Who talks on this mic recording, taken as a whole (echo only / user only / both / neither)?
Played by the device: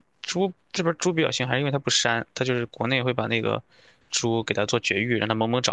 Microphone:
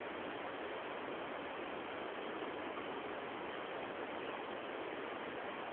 neither